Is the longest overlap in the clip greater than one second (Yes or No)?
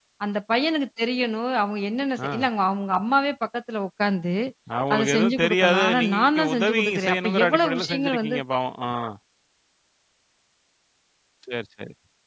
Yes